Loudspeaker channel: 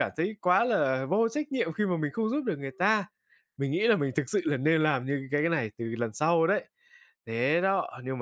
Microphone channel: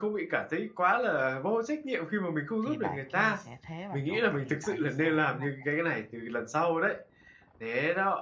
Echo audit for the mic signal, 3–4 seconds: both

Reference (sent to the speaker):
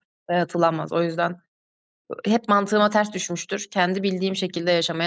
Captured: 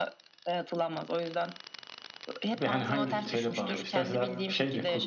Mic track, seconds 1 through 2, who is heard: echo only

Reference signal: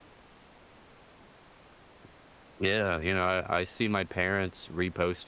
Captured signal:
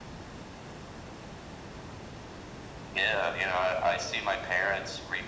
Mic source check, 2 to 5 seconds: echo only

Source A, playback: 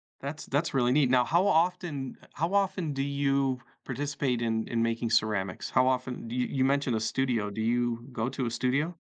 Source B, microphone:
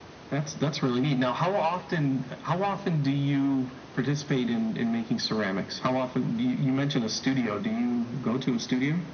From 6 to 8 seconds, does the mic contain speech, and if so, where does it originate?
echo only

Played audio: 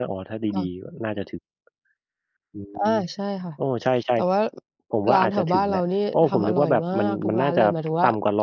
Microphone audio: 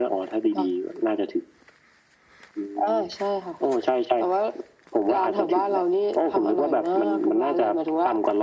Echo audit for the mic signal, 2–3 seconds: echo only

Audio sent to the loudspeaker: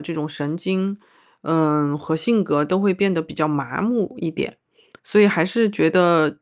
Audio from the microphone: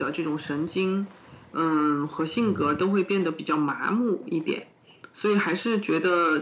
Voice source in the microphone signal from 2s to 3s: both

